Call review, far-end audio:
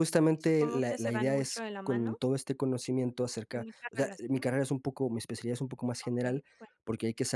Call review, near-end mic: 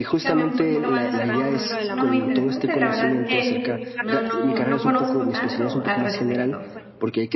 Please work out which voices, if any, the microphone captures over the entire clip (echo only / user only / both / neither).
both